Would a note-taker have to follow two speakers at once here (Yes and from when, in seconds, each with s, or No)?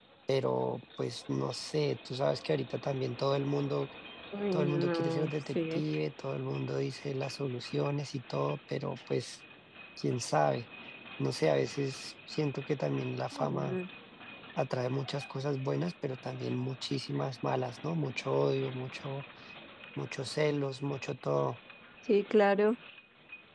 Yes, from 4.5 s